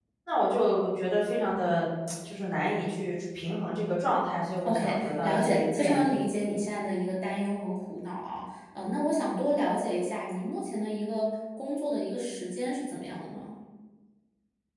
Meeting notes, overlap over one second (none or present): present